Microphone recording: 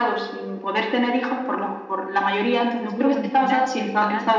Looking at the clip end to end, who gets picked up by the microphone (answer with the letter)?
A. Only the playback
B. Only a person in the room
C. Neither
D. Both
D